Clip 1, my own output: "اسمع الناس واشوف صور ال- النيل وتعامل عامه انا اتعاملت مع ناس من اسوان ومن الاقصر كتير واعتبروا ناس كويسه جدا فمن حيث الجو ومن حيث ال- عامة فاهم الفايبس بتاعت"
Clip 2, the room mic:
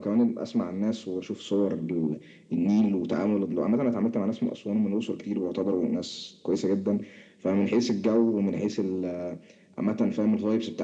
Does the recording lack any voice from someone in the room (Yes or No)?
Yes